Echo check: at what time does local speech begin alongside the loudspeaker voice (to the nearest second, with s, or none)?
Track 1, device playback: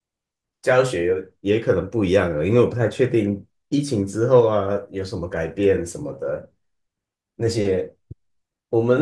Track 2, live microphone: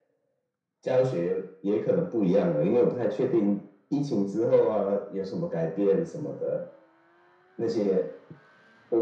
none